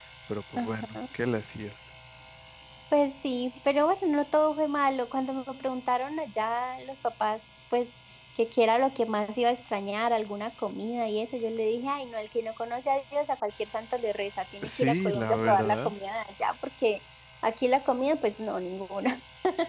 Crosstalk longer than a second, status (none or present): present